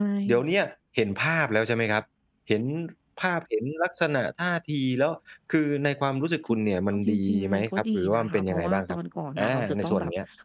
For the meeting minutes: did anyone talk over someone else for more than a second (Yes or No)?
Yes